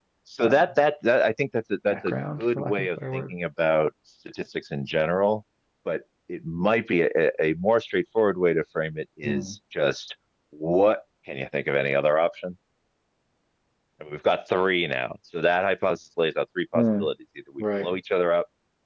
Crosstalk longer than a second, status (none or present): present